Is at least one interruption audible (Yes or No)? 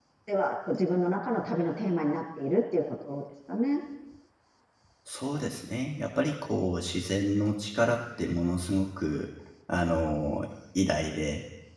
No